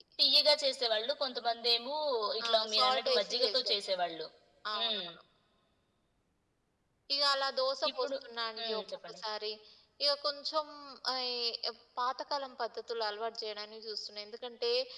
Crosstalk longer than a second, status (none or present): present